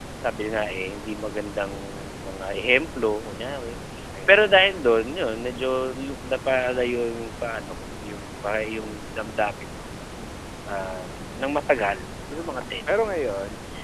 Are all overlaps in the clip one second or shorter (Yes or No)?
Yes